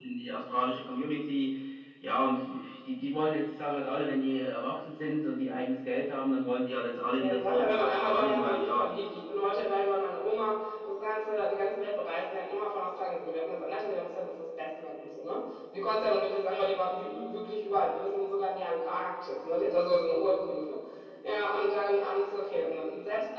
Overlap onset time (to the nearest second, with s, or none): 7 s